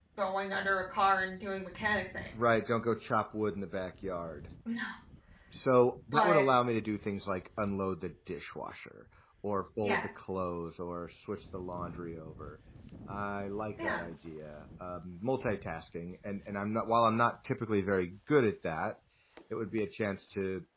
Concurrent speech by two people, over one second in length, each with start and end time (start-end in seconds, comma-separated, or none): none